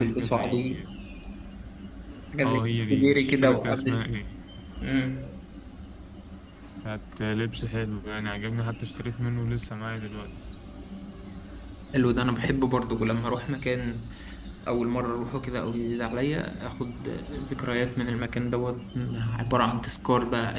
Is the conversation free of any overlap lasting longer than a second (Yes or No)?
No